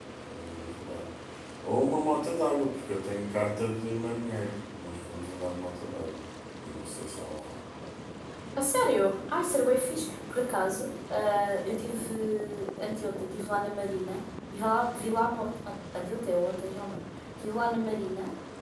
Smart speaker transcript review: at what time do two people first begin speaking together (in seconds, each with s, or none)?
none